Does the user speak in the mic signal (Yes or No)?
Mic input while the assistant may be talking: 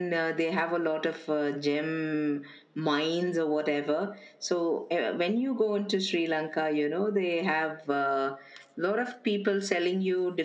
No